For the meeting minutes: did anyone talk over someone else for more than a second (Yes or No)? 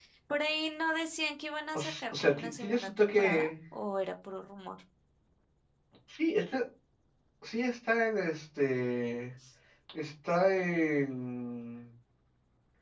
Yes